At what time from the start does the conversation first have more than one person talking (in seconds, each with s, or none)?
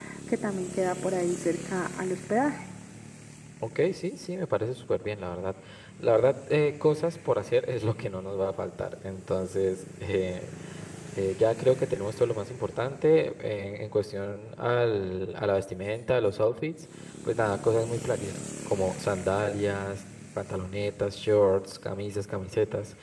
none